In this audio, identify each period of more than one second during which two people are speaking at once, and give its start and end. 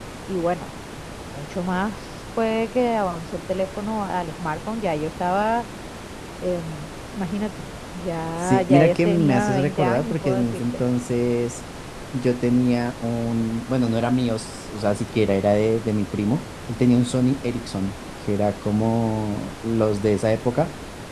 8.4-10.8

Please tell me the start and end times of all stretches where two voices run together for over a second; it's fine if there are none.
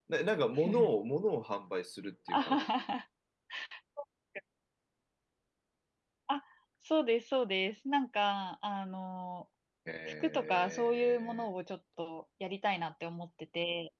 10.2-11.5

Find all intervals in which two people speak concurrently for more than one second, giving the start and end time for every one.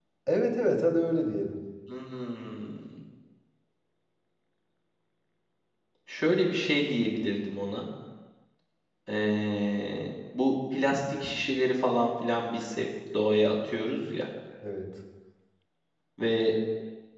none

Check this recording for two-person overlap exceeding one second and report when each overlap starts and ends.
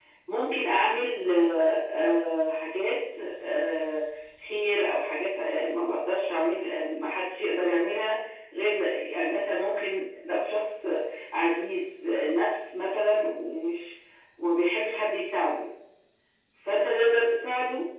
none

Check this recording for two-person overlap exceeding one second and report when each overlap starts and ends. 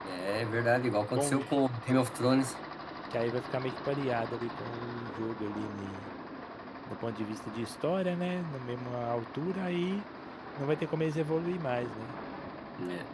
none

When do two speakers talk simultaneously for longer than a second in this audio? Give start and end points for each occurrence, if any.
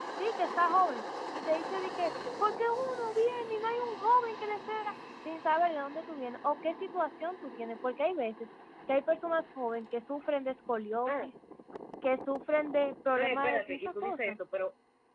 13.2-14.4

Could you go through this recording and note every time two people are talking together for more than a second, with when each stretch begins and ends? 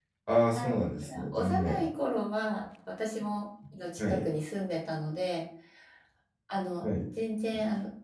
0.6-1.9

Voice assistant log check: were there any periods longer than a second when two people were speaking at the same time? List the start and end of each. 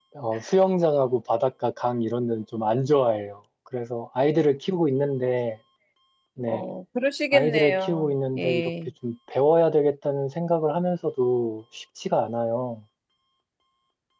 7.3-8.7

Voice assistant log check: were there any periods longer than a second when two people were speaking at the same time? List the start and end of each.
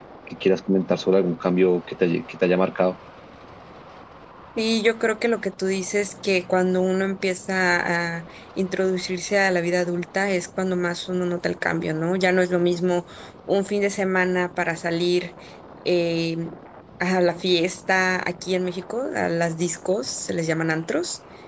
none

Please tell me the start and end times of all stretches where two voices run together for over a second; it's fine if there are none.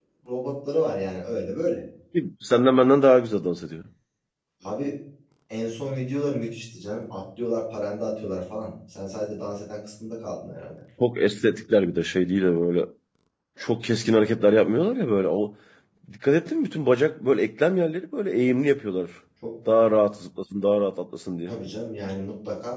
none

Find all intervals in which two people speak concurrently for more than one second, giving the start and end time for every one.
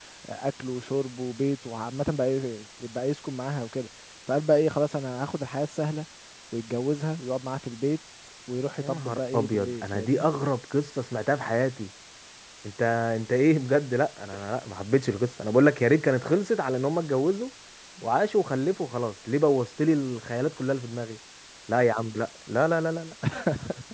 8.8-10.2

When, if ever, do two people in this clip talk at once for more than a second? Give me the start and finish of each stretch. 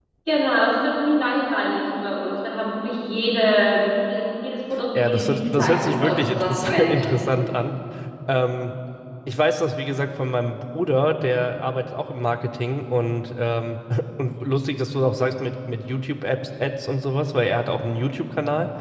5.0-6.9

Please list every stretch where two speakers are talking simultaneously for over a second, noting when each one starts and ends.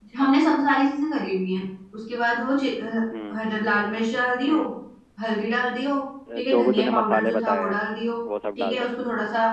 6.3-7.8

